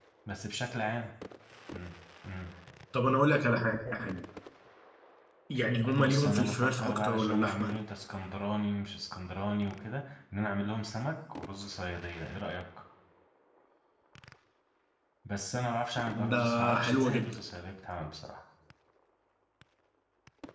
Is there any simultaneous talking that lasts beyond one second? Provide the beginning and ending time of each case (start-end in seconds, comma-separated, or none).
5.9-7.7, 16.1-17.4